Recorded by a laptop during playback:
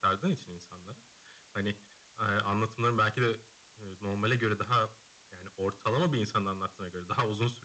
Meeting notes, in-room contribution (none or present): none